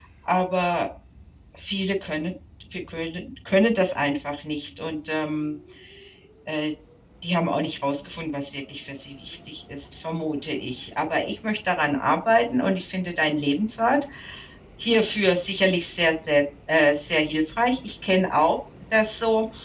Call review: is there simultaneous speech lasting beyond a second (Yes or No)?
No